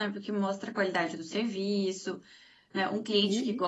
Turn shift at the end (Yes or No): No